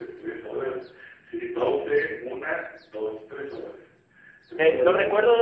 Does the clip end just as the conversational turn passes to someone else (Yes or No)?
Yes